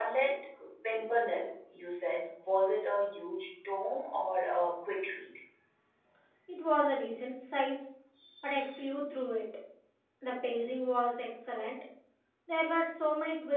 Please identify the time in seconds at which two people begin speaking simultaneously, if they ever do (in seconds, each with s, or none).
none